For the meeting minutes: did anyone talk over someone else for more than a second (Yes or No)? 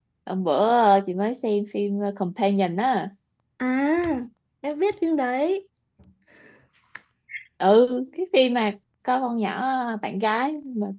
No